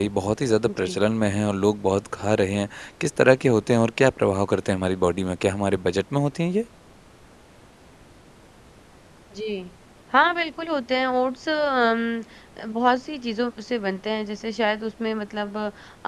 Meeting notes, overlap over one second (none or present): none